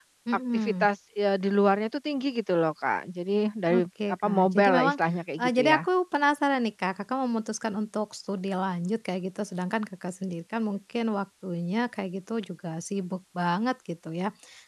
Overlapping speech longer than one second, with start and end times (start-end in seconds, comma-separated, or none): 3.7-5.0